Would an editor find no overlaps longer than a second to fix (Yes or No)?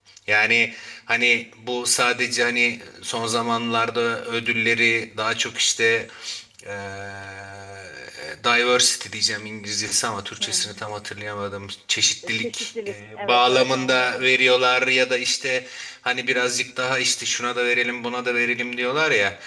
No